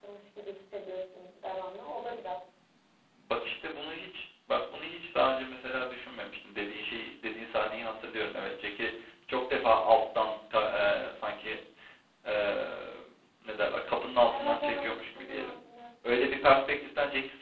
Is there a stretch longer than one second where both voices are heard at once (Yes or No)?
Yes